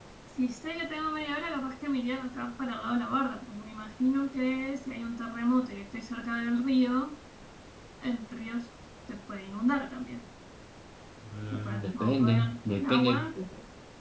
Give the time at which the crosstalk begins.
11.5 s

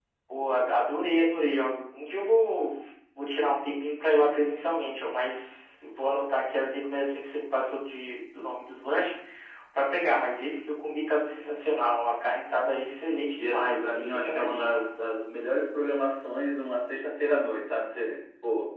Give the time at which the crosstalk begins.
13.4 s

